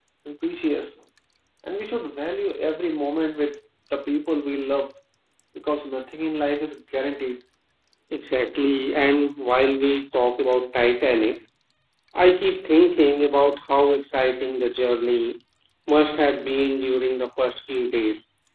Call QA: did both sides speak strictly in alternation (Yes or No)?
Yes